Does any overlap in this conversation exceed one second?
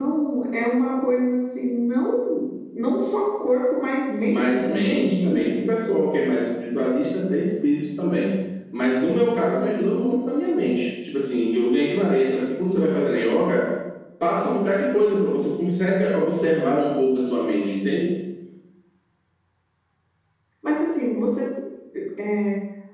Yes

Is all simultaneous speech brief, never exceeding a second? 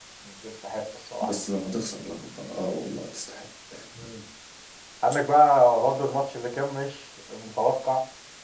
Yes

